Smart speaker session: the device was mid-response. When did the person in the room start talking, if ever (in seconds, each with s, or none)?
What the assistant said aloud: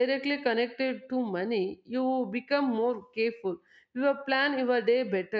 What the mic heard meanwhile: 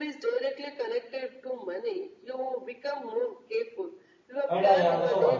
4.5 s